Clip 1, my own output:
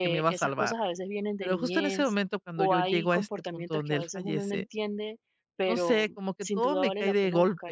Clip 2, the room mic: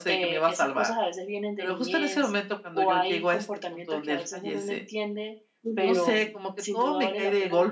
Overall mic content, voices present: both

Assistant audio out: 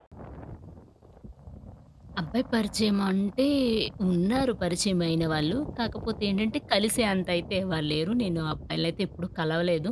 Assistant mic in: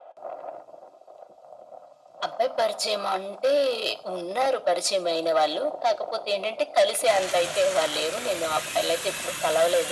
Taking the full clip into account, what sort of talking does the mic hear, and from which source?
echo only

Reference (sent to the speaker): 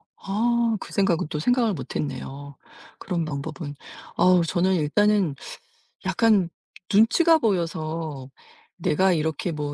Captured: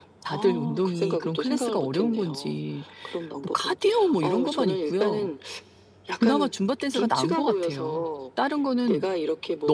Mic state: both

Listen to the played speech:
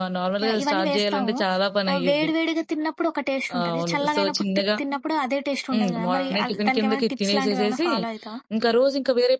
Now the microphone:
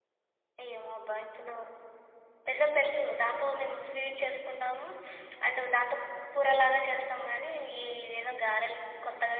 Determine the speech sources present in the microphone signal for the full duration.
user only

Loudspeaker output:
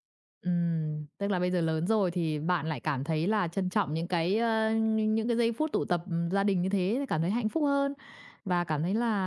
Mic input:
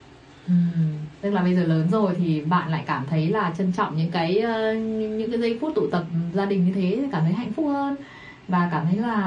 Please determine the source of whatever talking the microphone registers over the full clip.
echo only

